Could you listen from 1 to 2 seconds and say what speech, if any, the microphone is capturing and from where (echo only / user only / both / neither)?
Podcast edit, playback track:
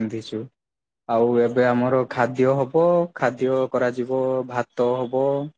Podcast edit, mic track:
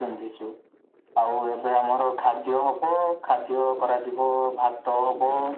echo only